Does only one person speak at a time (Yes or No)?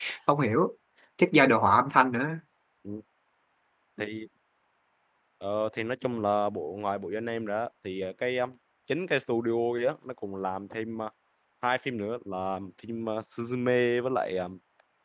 Yes